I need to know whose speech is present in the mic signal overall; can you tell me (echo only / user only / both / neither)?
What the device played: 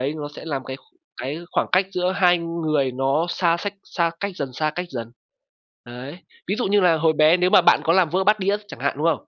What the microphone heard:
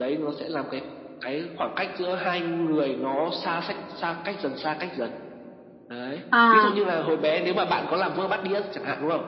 both